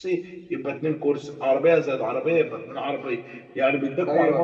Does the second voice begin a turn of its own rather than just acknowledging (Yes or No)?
No